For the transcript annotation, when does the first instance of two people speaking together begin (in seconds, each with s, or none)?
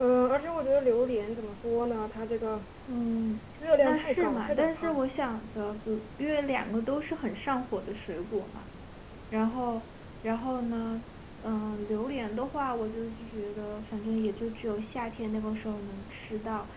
3.8 s